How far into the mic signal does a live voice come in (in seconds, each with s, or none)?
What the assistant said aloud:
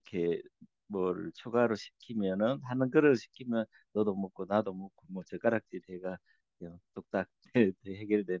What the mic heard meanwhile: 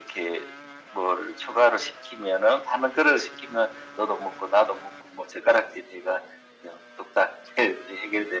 none